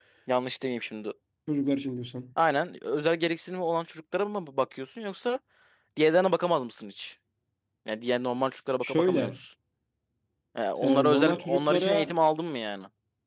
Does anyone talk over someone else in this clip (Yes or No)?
Yes